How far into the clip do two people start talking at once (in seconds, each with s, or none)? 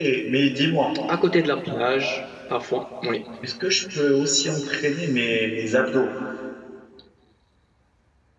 none